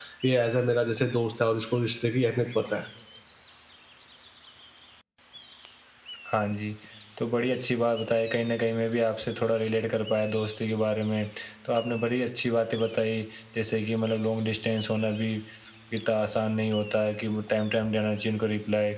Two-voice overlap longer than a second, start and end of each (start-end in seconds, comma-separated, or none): none